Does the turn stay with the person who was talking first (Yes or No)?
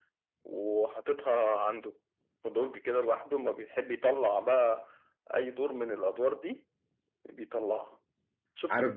No